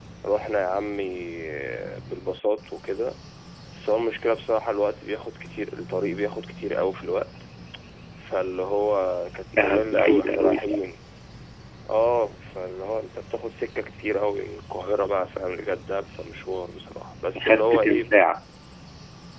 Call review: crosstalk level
present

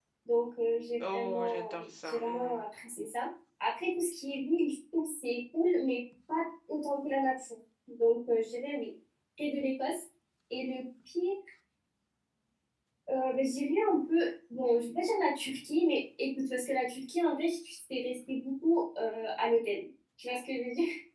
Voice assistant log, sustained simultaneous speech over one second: present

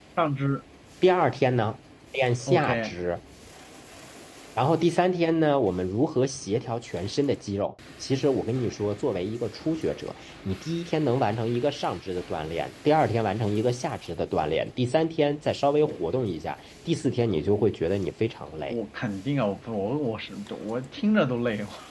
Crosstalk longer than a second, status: none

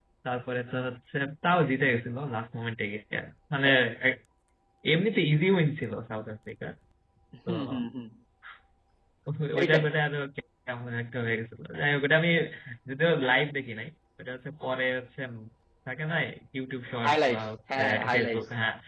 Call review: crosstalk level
present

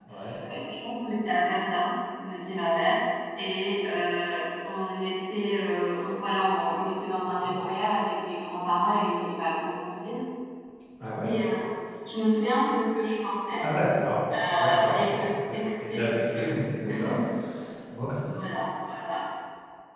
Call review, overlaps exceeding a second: present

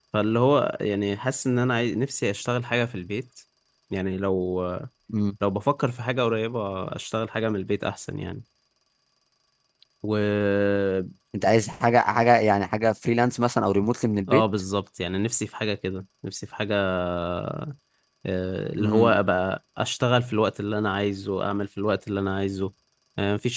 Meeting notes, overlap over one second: none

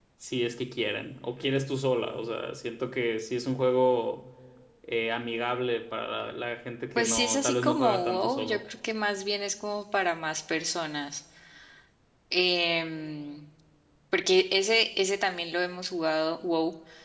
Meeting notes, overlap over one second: present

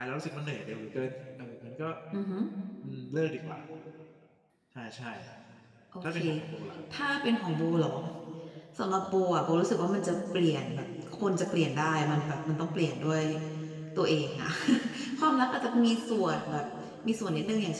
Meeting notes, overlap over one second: none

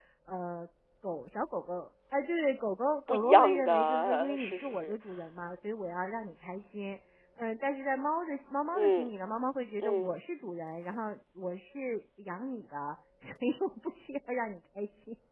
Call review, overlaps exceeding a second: present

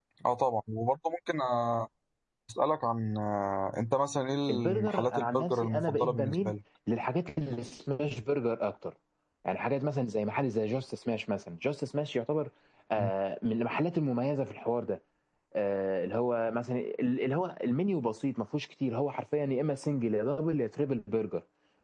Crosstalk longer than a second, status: present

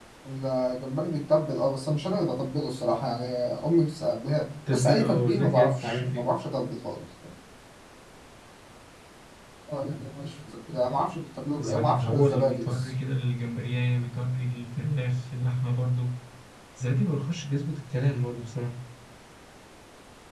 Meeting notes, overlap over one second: present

